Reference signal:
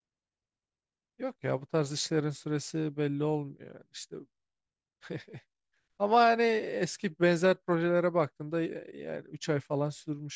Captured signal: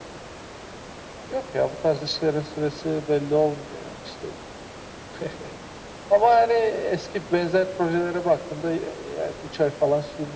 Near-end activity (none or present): none